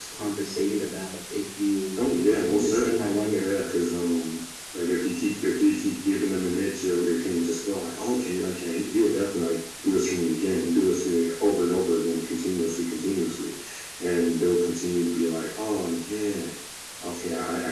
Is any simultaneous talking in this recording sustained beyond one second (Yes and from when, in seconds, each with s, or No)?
Yes, from 2.2 s